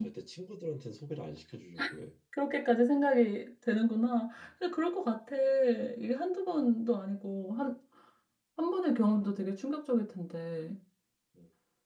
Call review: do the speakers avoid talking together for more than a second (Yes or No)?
Yes